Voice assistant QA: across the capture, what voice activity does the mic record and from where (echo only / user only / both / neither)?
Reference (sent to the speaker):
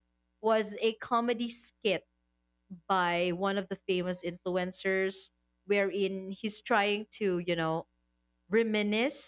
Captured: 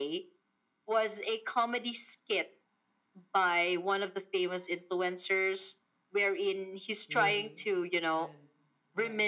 both